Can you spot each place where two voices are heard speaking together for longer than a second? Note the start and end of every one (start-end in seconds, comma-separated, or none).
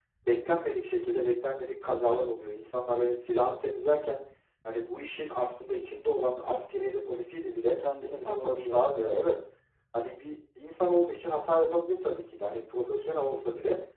8.0-9.3